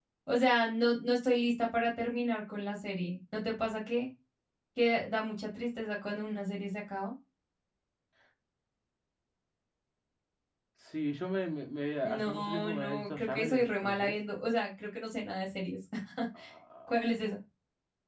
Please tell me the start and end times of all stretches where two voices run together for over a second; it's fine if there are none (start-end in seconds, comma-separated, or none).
12.0-14.1